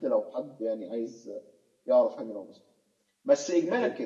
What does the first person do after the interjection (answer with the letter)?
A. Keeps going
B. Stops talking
A